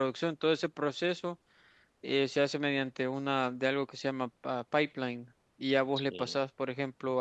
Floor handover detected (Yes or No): No